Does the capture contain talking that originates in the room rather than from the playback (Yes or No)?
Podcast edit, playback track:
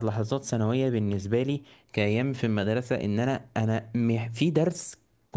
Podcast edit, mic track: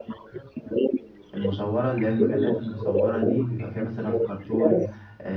Yes